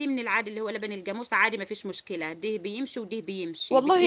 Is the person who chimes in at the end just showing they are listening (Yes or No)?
No